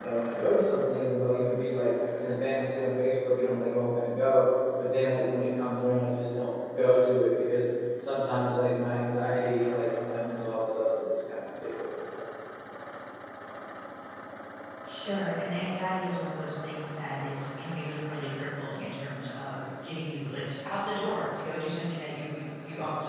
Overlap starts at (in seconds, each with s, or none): none